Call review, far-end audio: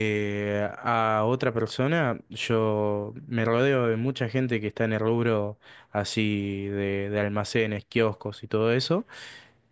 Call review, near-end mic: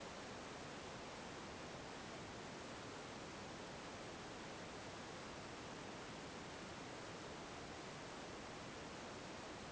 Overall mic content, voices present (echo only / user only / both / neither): neither